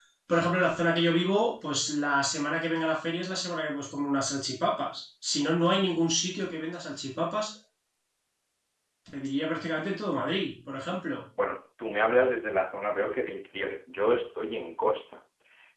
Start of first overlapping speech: none

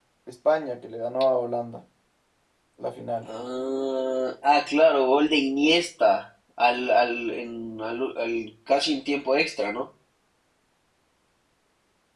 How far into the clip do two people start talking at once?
none

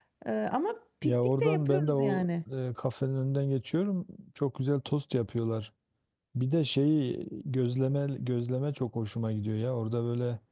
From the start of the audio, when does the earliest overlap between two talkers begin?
1 s

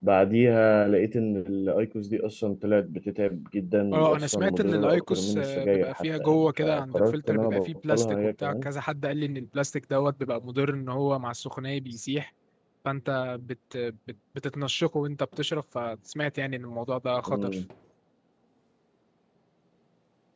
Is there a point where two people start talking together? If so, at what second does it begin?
4 s

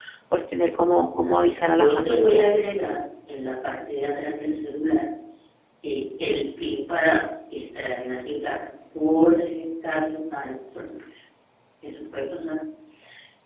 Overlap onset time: 1 s

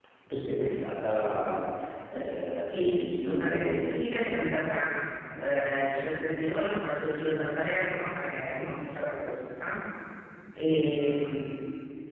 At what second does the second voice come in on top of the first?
3 s

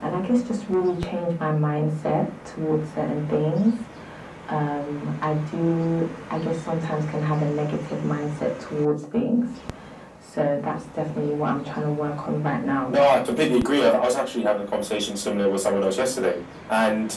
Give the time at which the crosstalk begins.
none

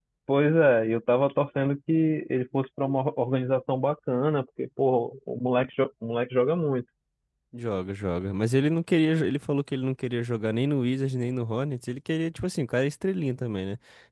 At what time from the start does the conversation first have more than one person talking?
none

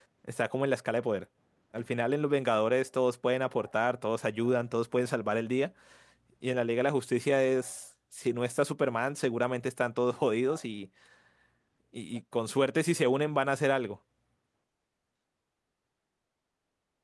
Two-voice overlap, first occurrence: none

